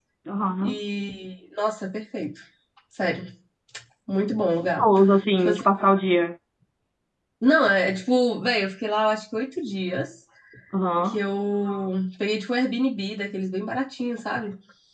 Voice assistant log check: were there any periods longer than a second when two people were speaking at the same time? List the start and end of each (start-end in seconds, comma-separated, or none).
none